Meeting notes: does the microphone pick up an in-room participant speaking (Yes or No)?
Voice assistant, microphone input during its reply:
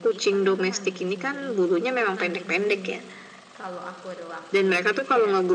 Yes